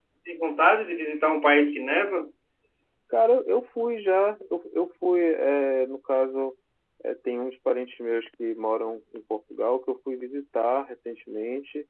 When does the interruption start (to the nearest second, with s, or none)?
none